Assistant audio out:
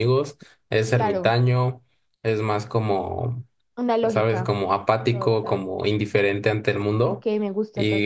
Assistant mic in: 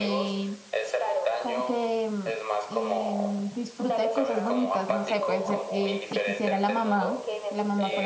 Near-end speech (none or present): present